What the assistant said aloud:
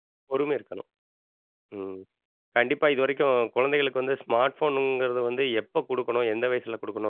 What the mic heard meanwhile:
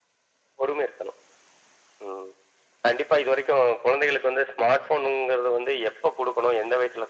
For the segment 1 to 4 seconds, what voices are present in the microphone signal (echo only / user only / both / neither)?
echo only